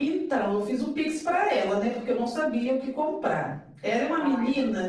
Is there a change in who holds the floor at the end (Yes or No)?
No